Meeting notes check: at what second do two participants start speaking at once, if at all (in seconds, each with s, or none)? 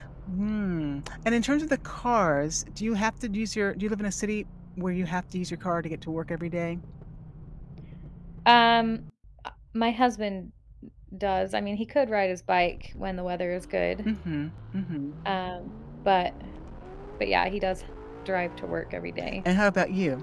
none